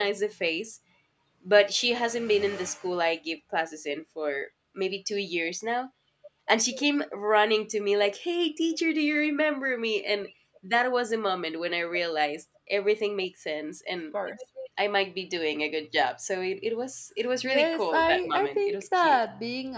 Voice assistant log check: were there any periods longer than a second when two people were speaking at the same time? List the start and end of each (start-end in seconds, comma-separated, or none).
17.4-19.2